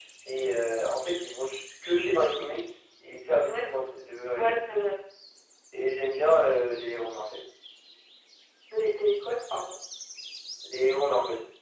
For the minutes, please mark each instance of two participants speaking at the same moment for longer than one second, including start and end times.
none

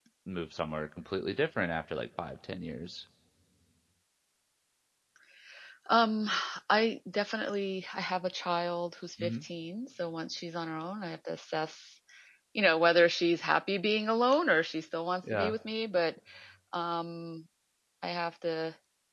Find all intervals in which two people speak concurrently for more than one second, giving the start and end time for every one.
none

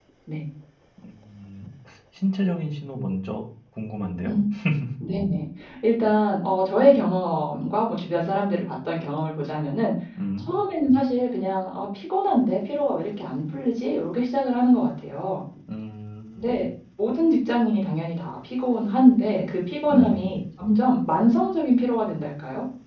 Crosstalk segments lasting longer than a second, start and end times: none

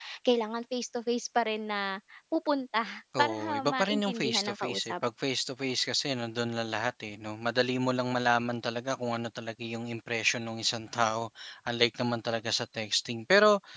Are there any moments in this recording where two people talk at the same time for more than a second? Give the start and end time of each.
3.2-4.9

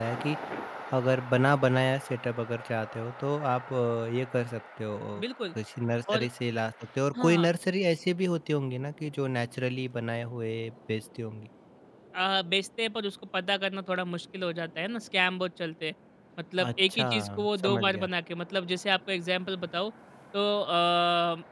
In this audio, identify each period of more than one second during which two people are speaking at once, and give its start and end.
16.6-18.1

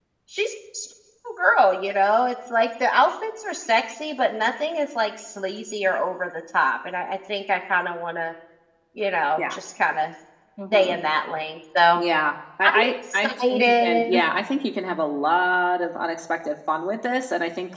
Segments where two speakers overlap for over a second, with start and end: 12.6-14.2

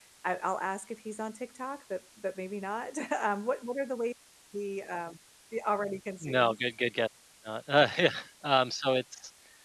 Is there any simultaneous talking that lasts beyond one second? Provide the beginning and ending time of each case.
none

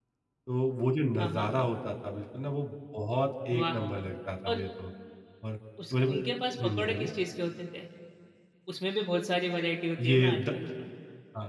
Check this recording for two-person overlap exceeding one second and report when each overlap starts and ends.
none

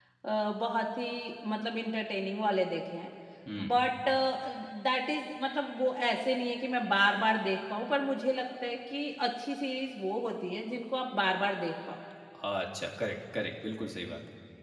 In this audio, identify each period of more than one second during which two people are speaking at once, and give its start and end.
none

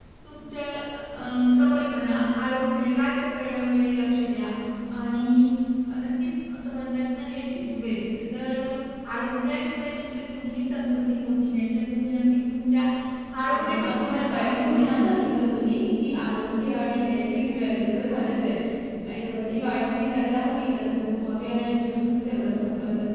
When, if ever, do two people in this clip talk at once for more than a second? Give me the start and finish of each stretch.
13.4-15.3

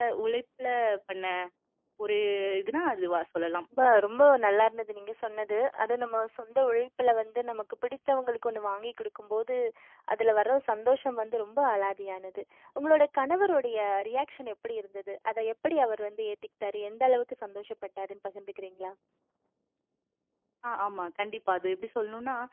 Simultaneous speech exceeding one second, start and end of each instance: none

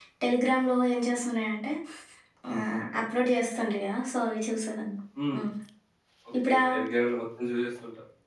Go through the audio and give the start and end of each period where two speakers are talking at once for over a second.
none

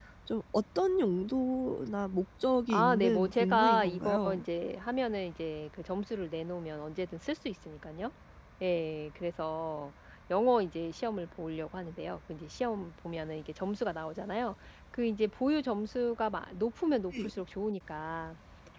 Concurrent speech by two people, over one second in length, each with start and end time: 2.7-4.4

